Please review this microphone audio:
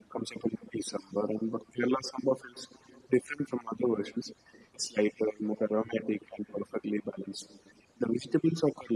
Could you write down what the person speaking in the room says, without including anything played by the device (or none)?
none